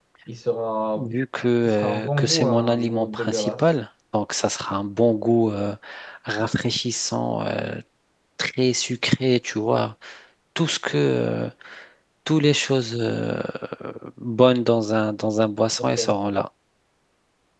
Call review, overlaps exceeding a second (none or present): present